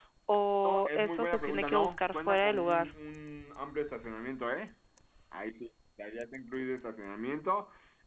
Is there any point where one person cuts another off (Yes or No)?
Yes